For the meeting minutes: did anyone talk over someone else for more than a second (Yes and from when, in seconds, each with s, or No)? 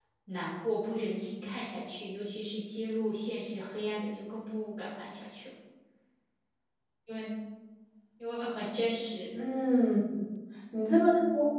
No